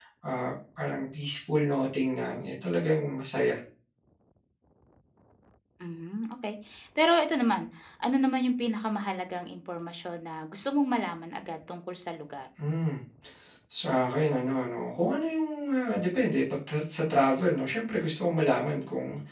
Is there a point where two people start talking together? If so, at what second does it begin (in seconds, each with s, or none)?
none